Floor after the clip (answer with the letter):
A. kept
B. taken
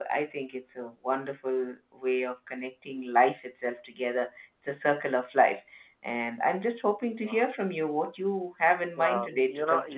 B